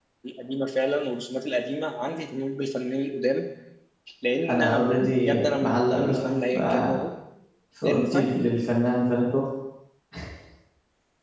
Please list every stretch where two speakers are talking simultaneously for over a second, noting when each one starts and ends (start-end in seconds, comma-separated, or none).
4.5-7.0